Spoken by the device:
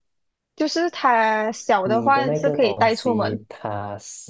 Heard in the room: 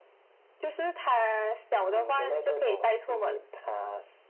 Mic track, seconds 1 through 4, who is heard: echo only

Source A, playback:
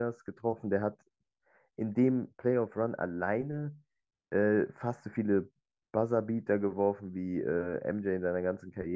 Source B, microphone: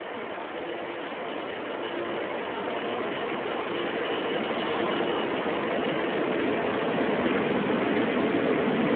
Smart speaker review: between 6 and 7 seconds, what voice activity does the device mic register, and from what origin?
neither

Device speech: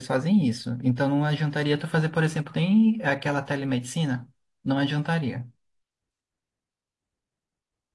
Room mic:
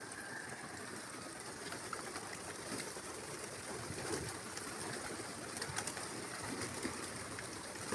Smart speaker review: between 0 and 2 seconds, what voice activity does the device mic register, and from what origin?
neither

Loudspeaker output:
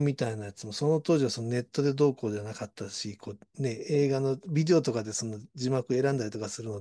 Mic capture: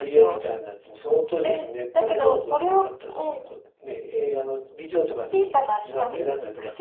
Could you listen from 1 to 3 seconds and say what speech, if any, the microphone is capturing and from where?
both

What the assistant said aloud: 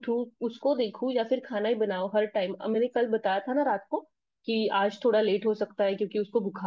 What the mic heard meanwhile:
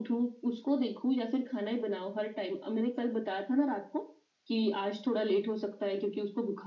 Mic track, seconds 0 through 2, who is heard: echo only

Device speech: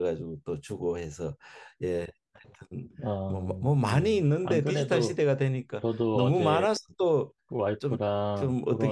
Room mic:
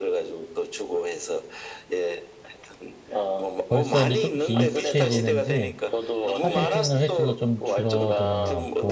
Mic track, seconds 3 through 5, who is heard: both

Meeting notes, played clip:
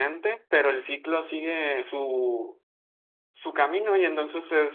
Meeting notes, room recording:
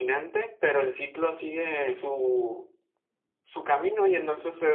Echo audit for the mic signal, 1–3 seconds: echo only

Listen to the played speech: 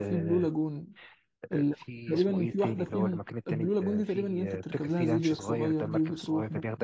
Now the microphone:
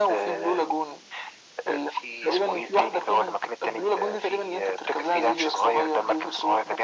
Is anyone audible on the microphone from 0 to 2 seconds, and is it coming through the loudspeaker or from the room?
echo only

